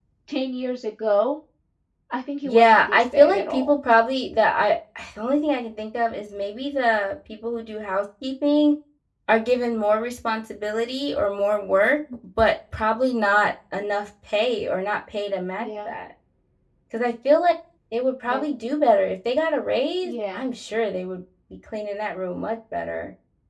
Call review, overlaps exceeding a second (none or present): present